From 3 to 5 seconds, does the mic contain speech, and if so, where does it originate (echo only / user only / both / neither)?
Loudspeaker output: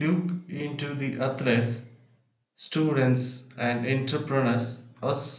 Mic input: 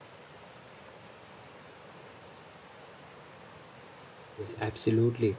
user only